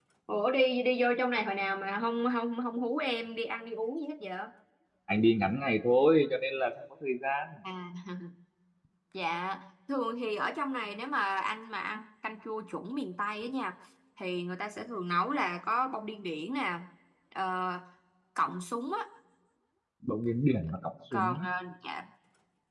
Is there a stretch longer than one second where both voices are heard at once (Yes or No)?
No